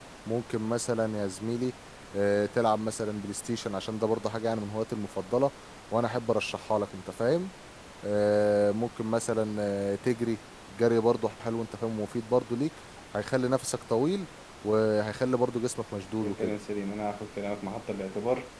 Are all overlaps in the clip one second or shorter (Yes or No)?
Yes